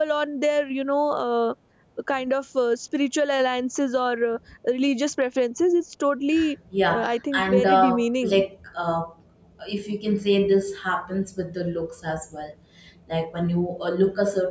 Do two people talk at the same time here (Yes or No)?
Yes